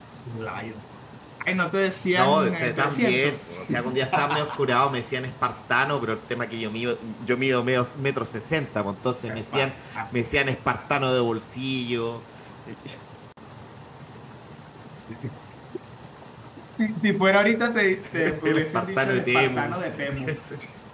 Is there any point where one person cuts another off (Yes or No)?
Yes